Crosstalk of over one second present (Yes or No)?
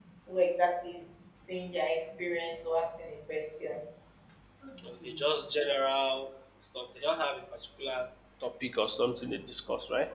No